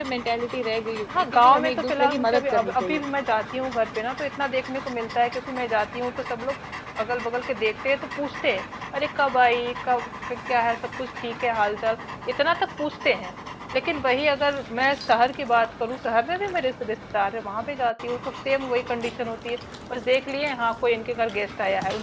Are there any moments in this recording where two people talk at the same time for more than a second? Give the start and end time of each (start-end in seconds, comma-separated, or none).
1.2-3.0